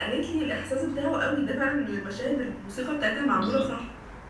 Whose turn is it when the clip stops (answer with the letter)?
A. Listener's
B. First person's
A